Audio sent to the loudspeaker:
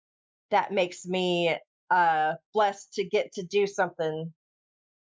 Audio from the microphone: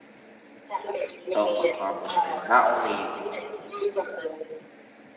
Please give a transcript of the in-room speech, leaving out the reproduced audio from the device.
self accomplishment, not only

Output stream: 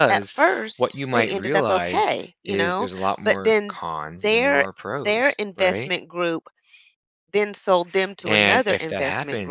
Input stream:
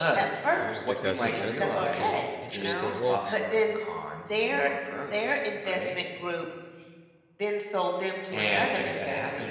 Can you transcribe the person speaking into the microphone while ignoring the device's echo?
Oh, that doesn't, does it? Okay, interesting. Well,

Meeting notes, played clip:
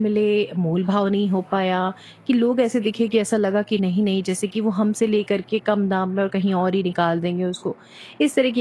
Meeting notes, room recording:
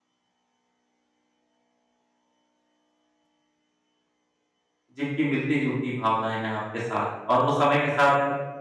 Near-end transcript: जिनकी मिलती-जुलती भावनाएँ हैं आपके साथ और वो समय के साथ

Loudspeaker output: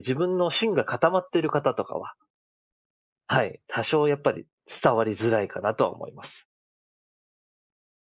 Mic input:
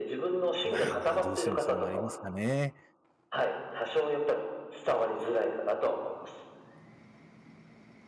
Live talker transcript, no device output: まあまあ、どうしてもそうなりますかね。

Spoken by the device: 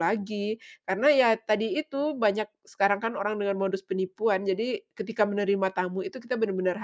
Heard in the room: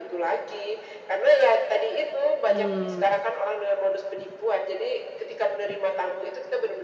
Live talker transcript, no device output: mmm,

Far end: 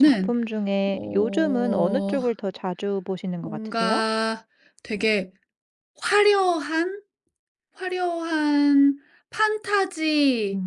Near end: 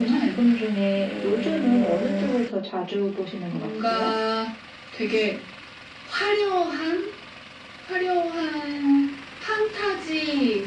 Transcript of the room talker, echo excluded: none

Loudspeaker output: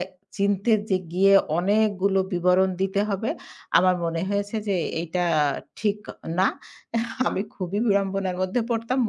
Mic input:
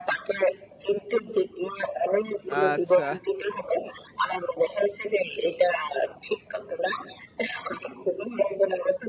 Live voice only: আচ্ছা।

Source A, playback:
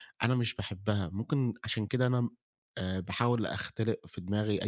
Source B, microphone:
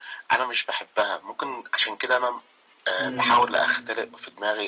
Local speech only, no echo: إمم.

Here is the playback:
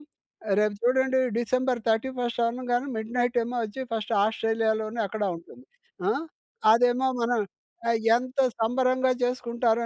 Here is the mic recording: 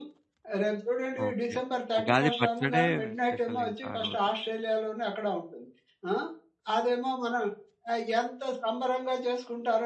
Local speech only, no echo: ఓకే. ఉగాది పచ్చడే స్పెషల్ ఇంకా ఆ రోజు.

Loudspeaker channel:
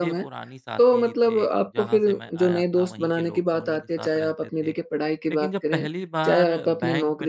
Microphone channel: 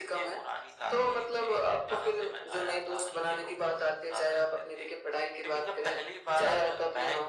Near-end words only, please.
none

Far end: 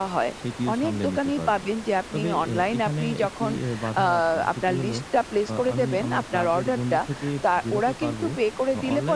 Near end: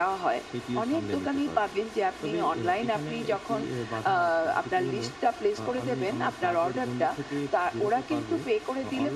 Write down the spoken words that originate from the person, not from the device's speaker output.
none

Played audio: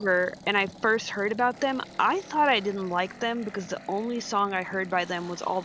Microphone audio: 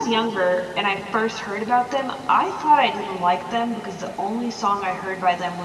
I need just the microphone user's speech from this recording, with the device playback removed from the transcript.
none

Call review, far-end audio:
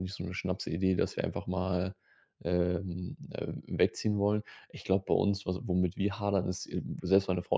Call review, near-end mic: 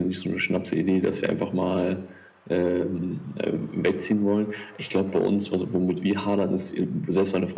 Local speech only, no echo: none

